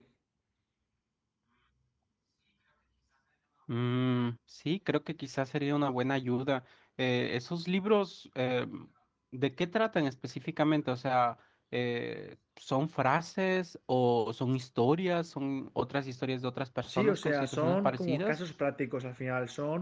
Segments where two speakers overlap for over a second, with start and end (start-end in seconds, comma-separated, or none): 16.9-18.4